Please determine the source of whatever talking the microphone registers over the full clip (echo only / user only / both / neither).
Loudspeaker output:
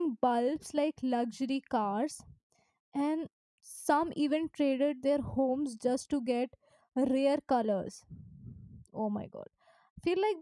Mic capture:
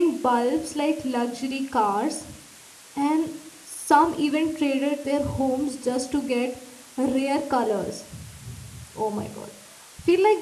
echo only